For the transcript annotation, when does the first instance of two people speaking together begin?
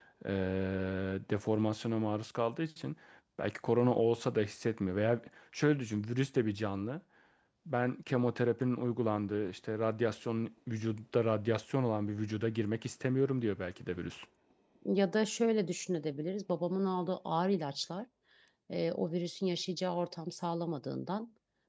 none

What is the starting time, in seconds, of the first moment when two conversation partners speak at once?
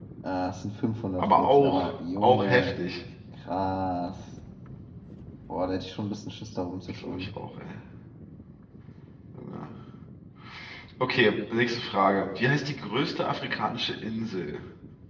1 s

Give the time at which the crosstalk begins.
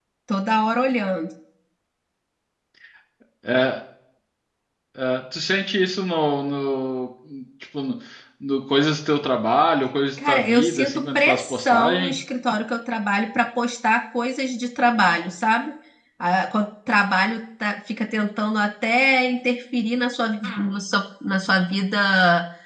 10 s

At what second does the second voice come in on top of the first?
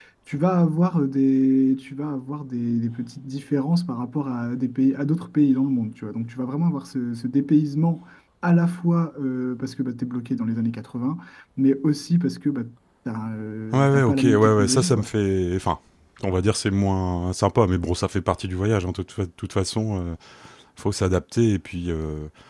14 s

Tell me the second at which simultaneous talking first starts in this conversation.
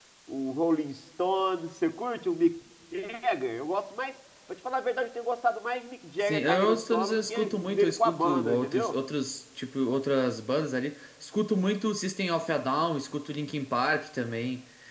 6 s

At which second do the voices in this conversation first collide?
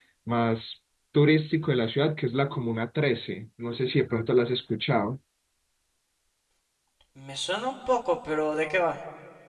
none

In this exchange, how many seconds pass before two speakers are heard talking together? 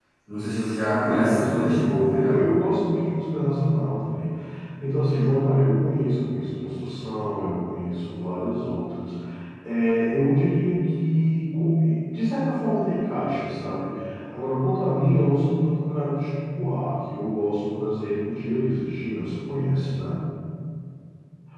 1 s

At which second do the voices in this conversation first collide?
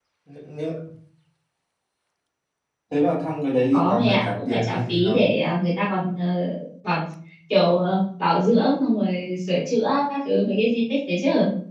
4 s

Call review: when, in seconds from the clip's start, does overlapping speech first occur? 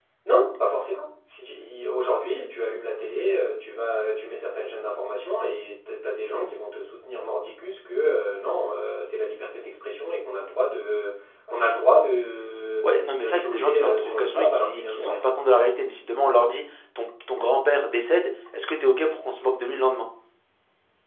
13 s

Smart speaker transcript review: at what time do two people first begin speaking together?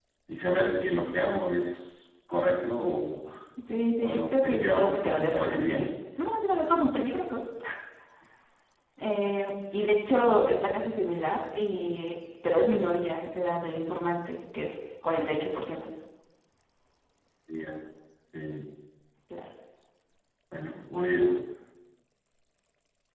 4 s

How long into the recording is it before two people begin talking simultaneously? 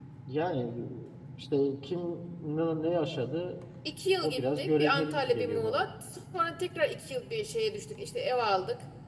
4 s

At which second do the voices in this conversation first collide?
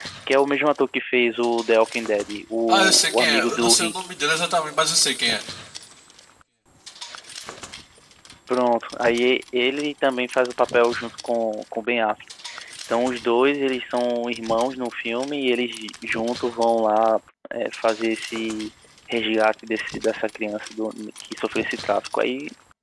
3 s

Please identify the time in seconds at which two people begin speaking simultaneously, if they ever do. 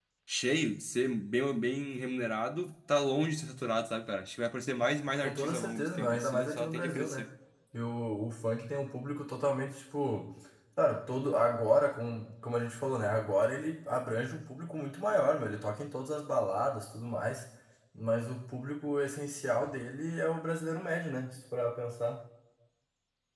5 s

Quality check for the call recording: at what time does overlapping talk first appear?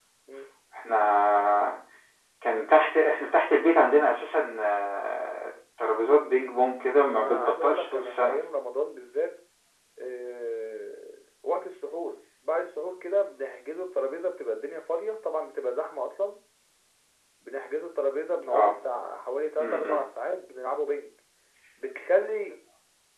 7 s

